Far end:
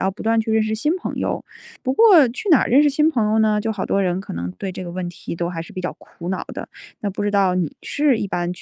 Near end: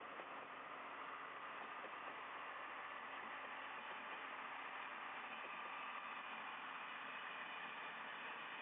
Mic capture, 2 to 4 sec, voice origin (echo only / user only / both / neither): neither